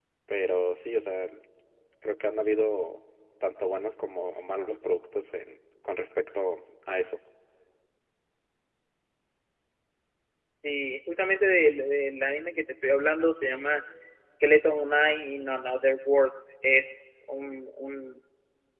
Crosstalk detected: No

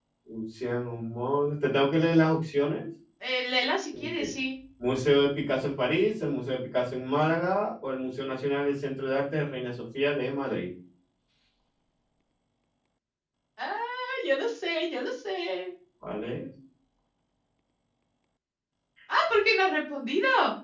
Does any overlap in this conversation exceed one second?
No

